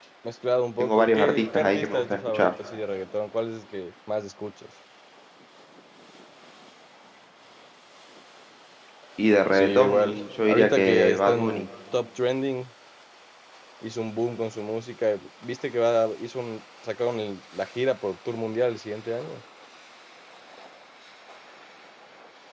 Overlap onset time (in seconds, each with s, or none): 0.8 s